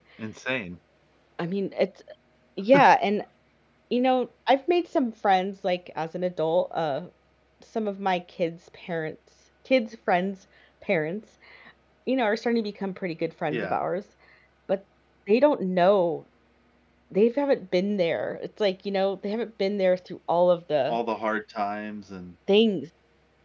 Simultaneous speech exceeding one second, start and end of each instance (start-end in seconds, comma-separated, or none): none